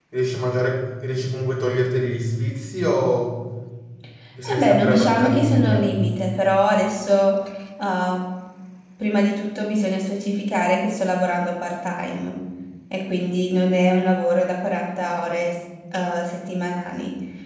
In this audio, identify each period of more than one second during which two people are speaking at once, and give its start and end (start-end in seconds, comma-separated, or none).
4.4-5.9